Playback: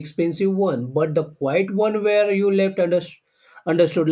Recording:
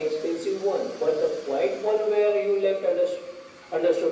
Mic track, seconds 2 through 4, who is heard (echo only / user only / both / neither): echo only